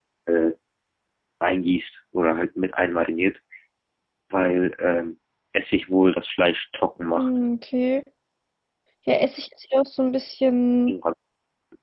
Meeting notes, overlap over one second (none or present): none